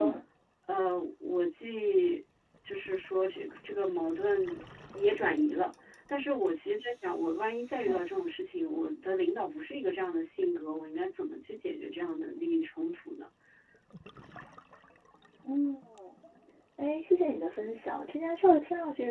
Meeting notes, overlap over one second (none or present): none